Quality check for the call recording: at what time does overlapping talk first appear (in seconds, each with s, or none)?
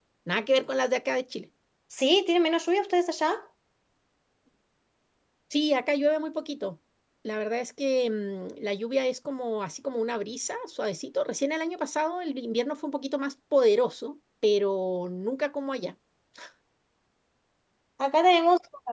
none